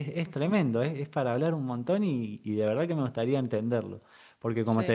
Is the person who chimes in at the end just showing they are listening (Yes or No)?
Yes